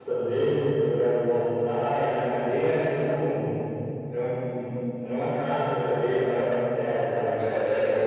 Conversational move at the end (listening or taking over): taking over